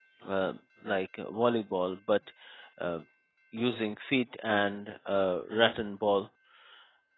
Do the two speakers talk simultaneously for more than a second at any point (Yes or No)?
No